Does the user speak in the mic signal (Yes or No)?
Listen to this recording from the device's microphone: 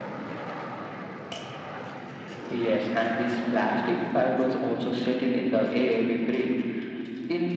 No